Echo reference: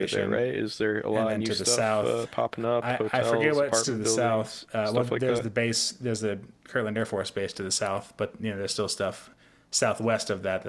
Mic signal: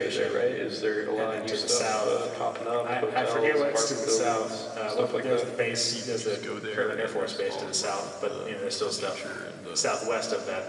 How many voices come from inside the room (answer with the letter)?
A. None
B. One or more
B